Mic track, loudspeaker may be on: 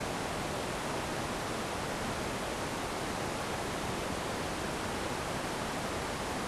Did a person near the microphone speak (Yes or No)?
No